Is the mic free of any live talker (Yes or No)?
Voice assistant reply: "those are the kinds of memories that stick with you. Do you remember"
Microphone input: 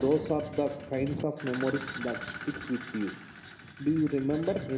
Yes